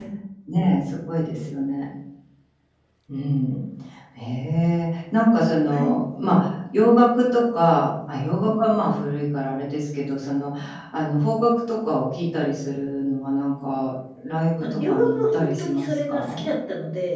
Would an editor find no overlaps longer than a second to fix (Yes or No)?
No